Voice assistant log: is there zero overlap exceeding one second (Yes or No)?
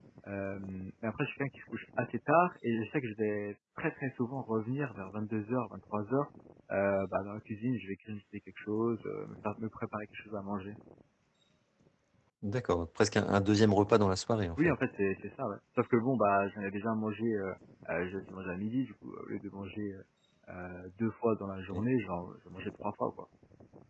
Yes